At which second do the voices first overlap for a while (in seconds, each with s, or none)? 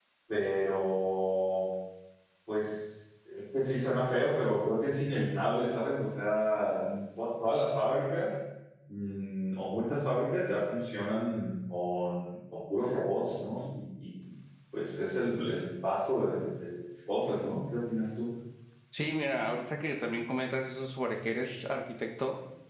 none